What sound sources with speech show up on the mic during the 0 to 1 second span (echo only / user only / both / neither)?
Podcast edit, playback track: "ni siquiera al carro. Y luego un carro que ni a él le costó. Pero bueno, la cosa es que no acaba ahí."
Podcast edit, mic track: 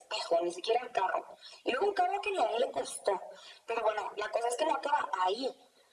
echo only